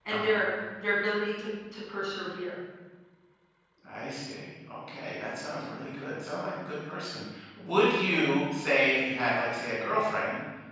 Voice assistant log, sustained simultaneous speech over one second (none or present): none